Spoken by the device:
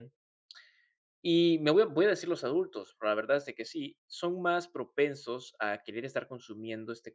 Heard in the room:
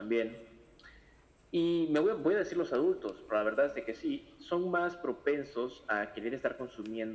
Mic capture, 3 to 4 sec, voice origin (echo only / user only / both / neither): echo only